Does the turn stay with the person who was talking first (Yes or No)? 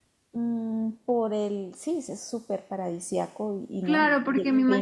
No